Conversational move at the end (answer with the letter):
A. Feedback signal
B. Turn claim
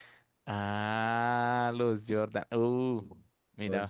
A